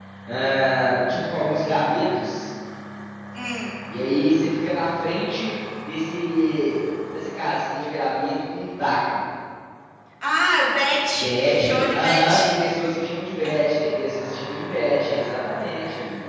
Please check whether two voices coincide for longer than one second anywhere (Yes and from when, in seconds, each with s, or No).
Yes, from 11.2 s